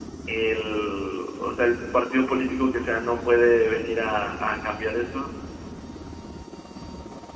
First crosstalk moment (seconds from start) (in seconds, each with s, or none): none